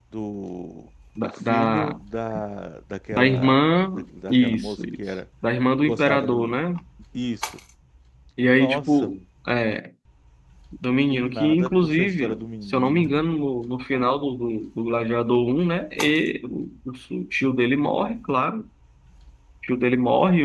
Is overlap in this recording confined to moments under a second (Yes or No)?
No